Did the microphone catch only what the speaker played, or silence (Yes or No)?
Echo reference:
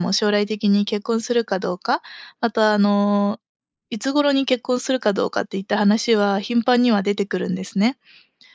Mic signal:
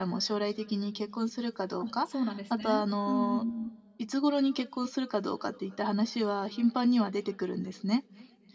No